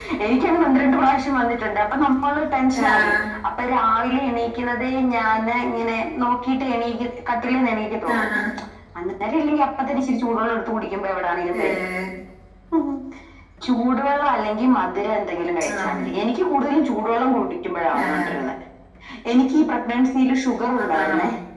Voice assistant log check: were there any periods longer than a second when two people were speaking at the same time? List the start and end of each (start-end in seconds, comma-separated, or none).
none